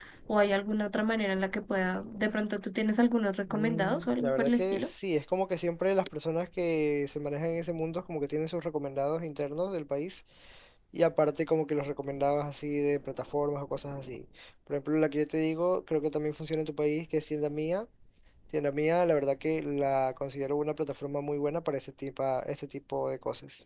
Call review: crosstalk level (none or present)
present